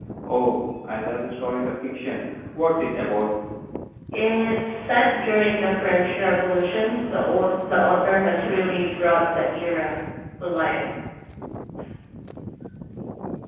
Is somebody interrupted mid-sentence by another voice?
No

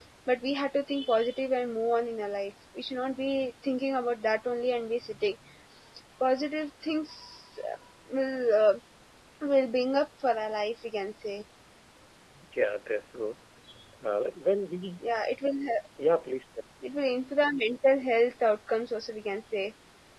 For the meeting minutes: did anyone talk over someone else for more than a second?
No

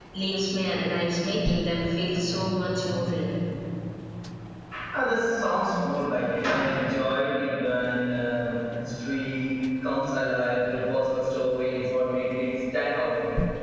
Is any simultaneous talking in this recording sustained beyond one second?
No

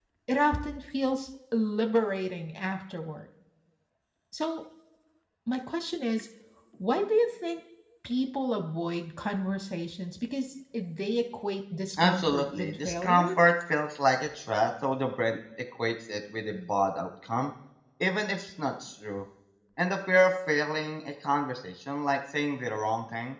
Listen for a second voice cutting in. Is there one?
Yes, from 12.0 s

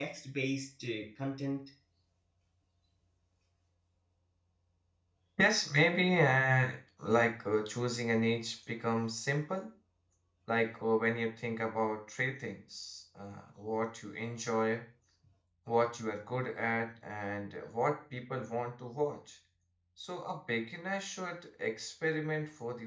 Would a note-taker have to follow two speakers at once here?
No

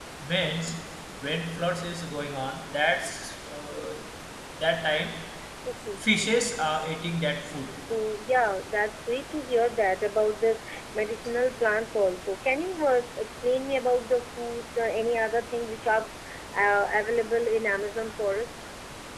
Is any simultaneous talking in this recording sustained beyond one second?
No

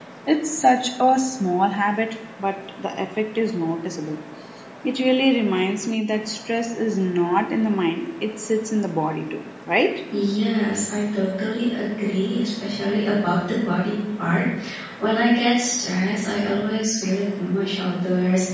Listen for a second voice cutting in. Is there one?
No

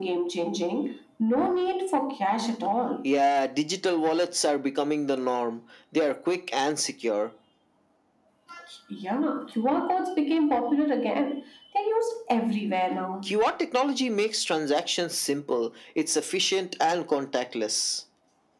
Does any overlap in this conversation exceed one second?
No

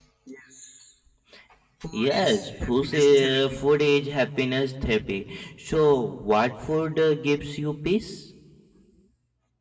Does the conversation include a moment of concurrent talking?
Yes, from 1.9 s

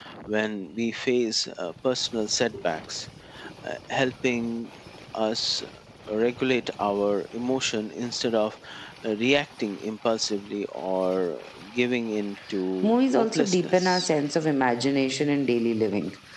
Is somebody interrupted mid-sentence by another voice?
Yes, from 12.8 s

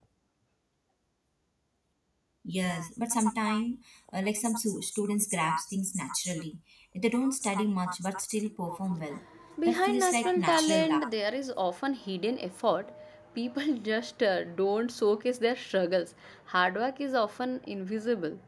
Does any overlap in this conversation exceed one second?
Yes, from 9.7 s

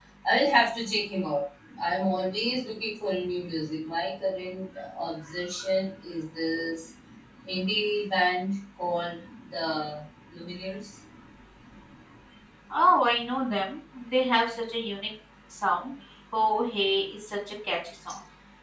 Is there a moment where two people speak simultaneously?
No

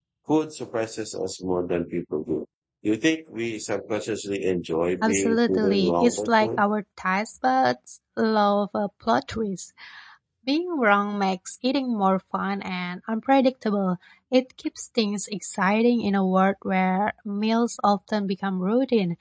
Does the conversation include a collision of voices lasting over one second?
Yes, from 5.0 s

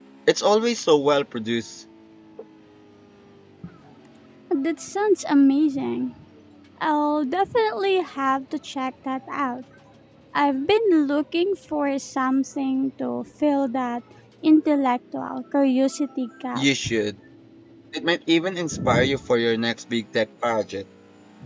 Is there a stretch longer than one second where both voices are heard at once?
No

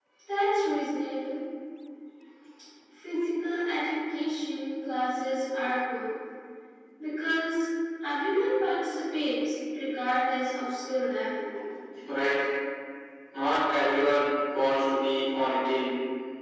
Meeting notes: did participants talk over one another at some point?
No

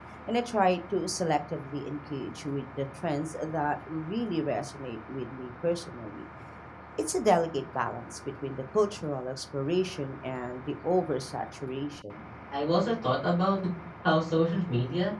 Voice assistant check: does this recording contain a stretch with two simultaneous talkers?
No

